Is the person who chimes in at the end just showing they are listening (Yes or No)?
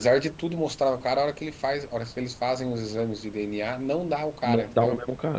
No